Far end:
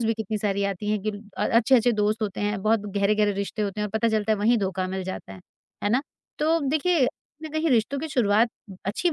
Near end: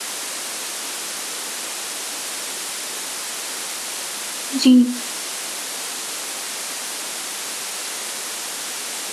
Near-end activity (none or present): present